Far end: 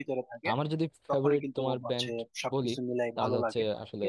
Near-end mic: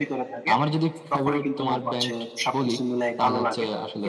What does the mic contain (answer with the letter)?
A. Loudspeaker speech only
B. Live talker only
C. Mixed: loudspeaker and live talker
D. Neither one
A